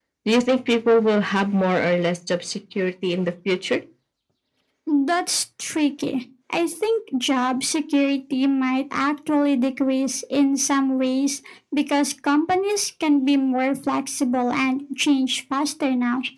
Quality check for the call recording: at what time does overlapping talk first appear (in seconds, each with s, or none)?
none